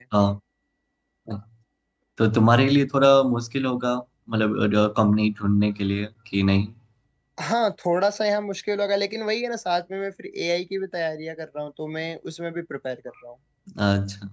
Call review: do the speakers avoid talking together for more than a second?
Yes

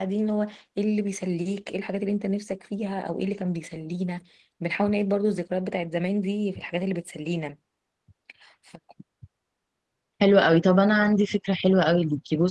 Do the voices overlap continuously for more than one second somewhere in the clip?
No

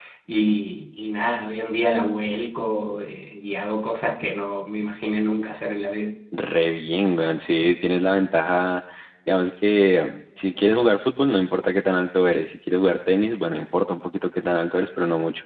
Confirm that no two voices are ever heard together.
Yes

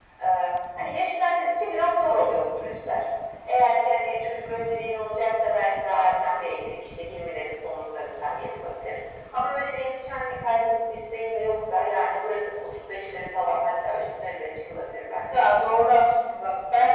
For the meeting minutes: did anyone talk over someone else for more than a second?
No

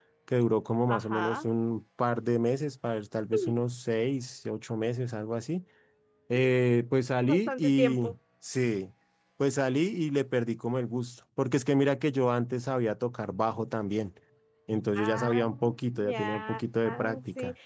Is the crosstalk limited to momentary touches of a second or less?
No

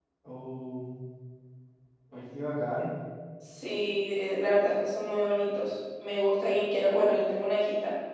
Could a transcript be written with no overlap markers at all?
Yes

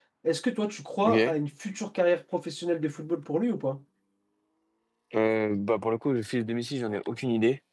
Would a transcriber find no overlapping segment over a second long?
Yes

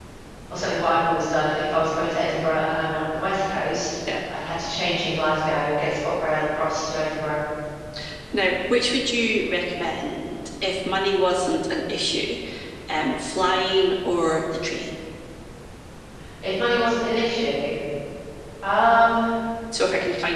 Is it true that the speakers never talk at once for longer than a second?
Yes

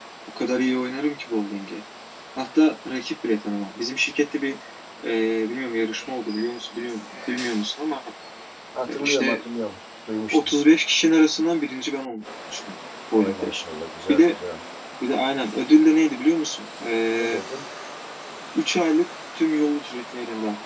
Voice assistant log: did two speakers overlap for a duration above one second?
No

